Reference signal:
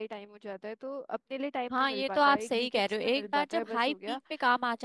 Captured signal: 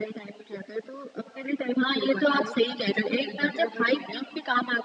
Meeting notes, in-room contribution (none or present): none